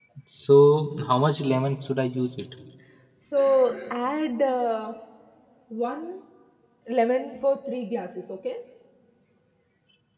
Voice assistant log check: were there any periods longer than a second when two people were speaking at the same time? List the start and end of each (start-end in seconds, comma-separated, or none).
none